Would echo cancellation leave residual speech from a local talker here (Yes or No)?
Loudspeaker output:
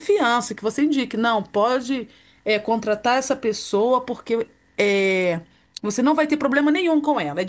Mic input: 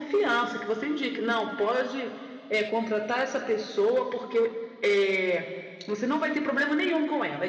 No